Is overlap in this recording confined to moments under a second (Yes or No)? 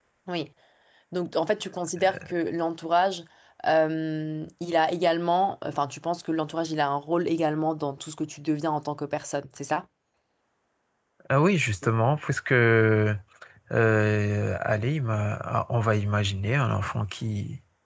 Yes